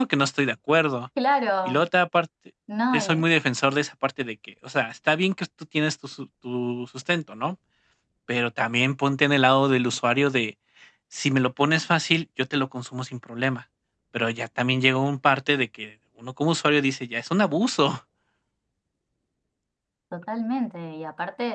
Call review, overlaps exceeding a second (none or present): none